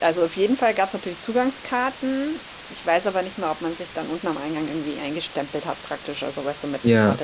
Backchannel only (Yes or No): Yes